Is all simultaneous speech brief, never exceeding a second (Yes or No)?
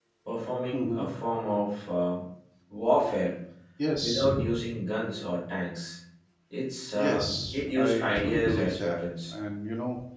No